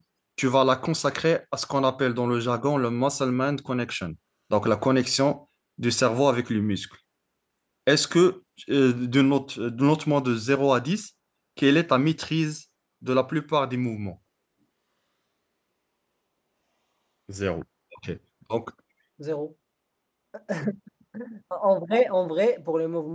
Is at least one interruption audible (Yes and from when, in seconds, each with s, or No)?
No